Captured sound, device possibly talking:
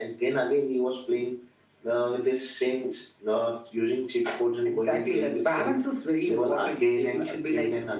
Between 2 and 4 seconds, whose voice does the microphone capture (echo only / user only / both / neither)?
echo only